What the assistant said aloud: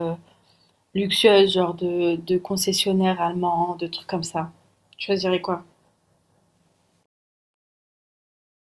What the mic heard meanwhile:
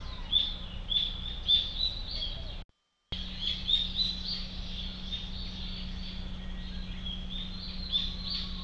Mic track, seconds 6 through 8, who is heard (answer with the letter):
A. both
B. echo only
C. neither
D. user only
C